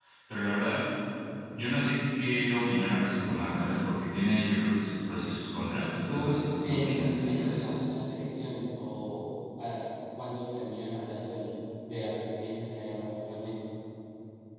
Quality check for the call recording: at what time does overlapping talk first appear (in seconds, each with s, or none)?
6.1 s